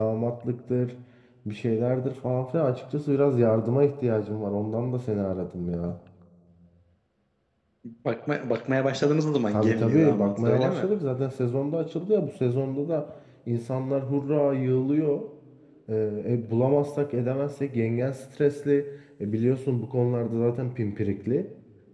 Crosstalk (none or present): present